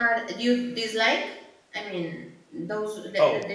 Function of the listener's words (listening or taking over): listening